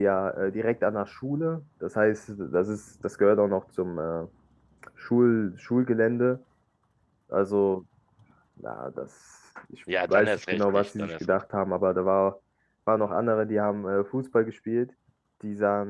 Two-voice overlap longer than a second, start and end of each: 10.1-11.4

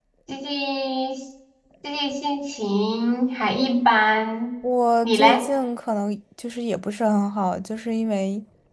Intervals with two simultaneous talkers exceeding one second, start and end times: none

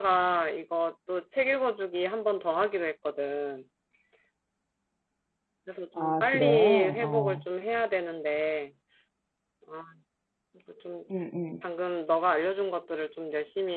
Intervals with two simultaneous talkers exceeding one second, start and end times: 6.0-7.4

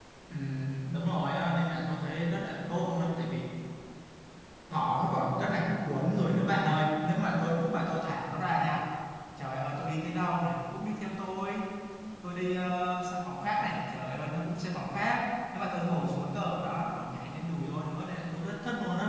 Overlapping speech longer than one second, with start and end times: none

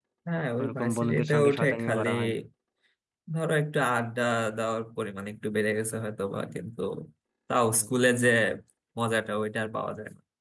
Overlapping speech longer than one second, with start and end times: 0.6-2.1

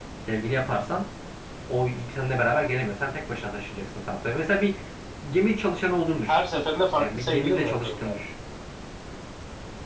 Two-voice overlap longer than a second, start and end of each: 7.0-8.2

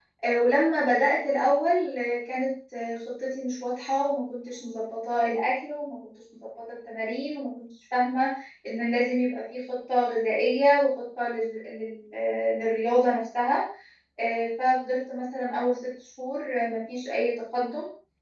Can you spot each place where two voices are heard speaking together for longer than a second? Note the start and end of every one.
none

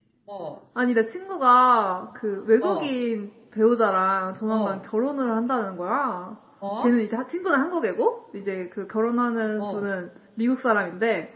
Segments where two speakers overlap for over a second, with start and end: none

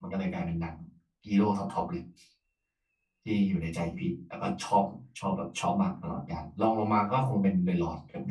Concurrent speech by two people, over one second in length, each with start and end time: none

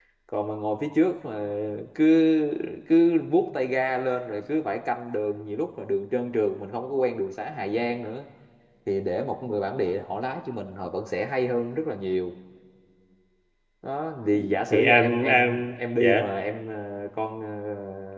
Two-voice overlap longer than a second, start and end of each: 14.7-16.3

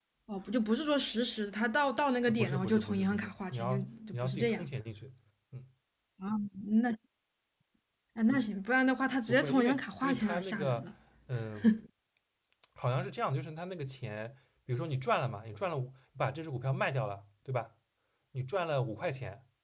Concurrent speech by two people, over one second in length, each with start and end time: 2.3-4.6, 9.3-10.9

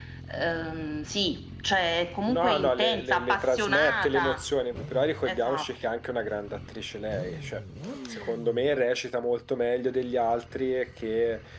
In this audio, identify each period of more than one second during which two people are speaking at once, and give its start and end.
2.3-4.4

